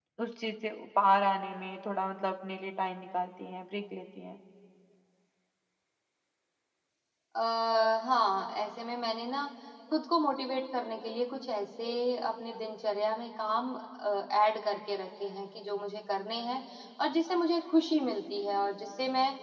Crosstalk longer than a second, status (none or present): none